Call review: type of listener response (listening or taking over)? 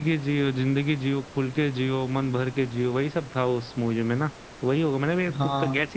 taking over